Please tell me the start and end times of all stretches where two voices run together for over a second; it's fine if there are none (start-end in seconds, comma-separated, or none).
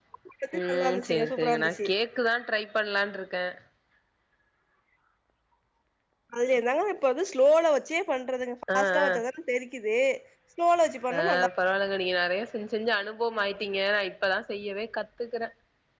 0.7-1.9